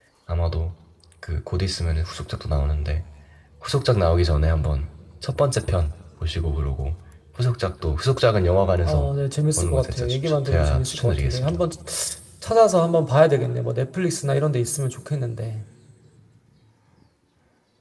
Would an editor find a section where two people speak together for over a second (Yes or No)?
Yes